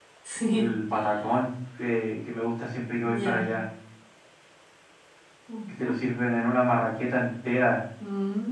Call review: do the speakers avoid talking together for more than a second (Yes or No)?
Yes